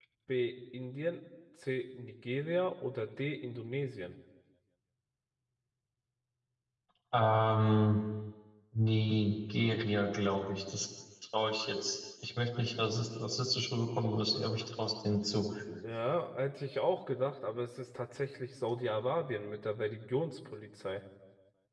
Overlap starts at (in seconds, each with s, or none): none